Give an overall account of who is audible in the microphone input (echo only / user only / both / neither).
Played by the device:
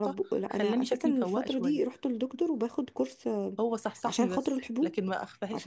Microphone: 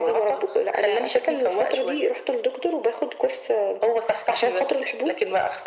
echo only